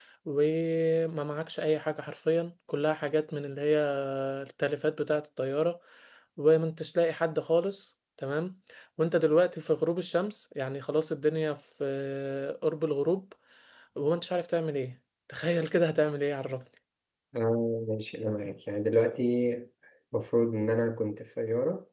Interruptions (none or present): none